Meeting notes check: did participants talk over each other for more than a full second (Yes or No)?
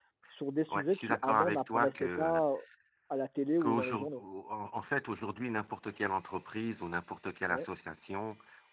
Yes